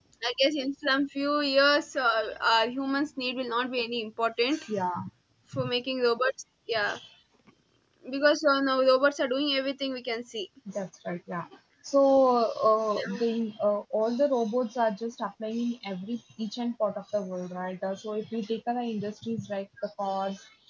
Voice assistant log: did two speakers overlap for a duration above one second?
No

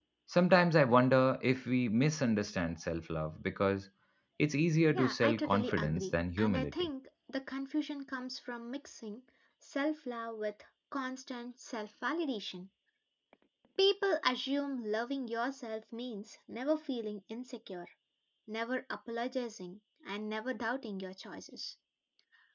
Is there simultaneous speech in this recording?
Yes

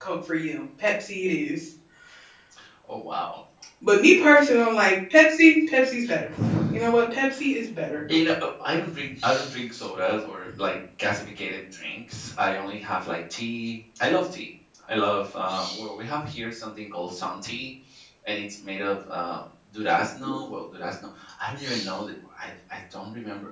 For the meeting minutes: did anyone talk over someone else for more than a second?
No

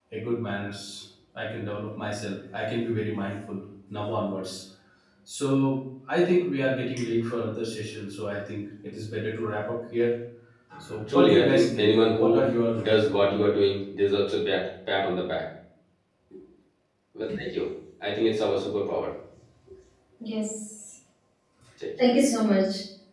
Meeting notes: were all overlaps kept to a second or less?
No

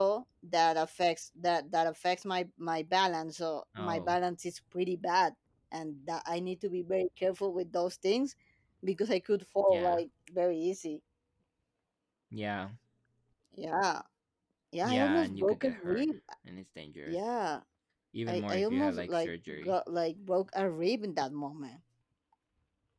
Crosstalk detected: Yes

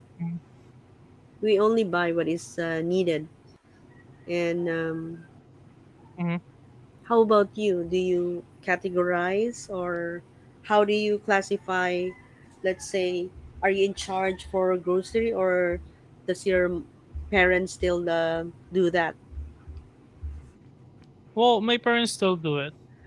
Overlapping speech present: No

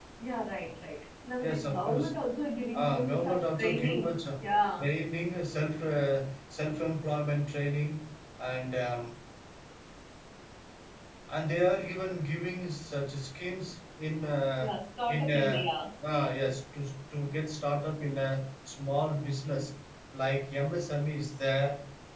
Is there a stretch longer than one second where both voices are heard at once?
Yes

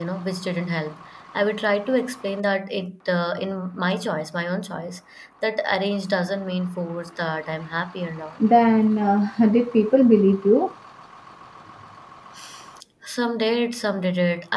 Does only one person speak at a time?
Yes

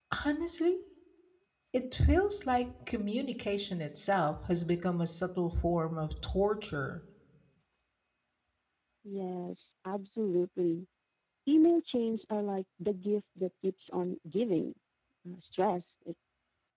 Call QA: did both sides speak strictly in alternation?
Yes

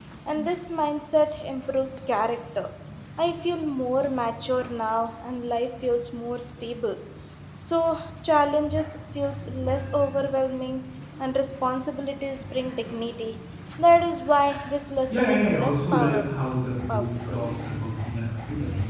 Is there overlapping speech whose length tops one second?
Yes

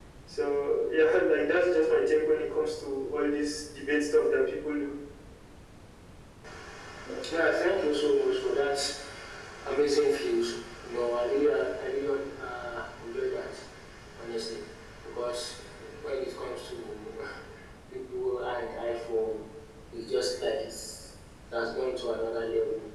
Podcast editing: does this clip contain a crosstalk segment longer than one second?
No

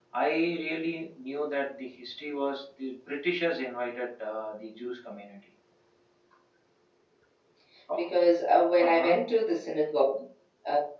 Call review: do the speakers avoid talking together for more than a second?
Yes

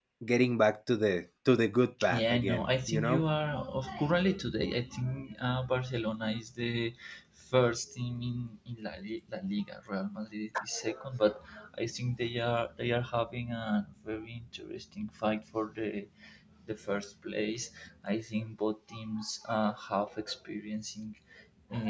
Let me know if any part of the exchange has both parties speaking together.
Yes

